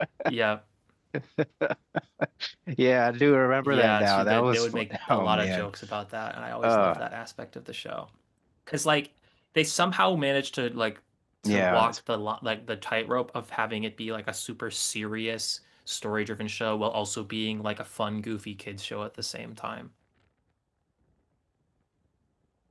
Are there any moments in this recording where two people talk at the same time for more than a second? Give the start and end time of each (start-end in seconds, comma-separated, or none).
3.6-5.7